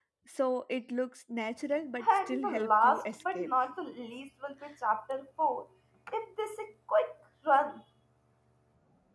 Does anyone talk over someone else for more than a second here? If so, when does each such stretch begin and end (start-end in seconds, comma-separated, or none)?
2.0-3.5